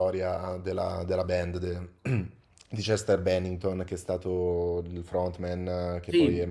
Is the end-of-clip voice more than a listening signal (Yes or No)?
Yes